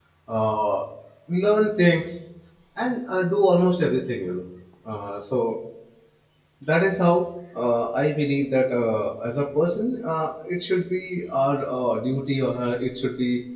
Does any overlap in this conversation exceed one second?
No

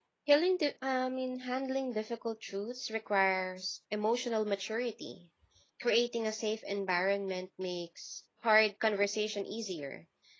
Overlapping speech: No

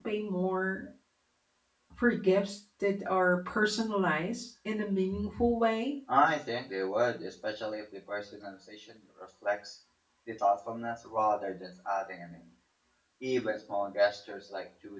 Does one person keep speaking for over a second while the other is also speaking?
No

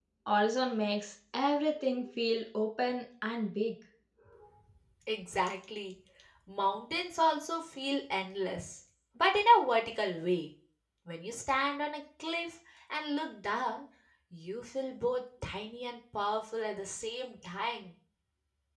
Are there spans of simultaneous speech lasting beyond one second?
No

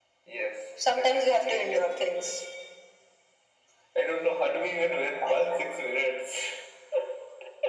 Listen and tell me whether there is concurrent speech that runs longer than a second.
Yes, from 1.0 s

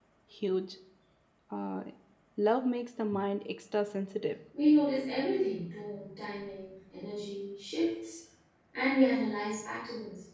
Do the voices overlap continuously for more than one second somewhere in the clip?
No

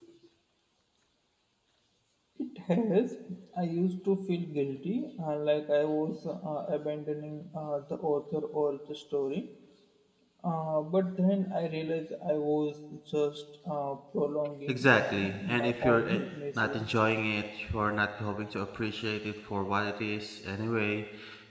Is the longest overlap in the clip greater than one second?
Yes, from 14.7 s

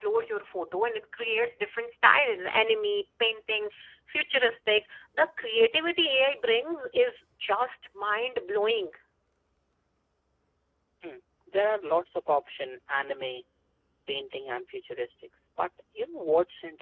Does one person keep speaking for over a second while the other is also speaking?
No

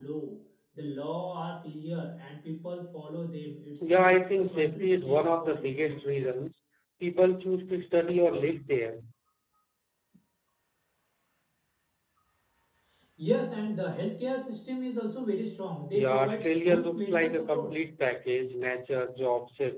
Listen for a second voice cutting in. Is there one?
Yes, from 3.8 s

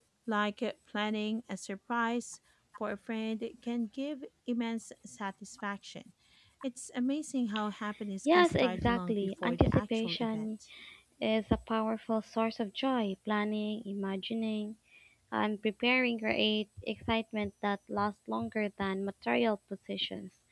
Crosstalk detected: Yes, from 8.2 s

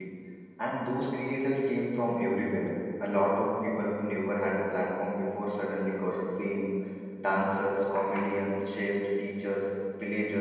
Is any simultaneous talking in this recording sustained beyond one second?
No

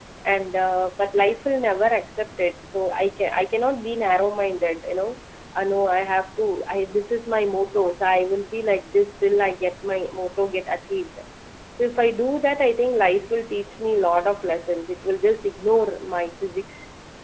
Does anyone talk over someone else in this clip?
No

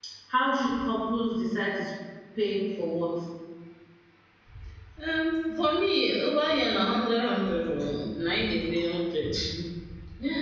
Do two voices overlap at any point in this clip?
No

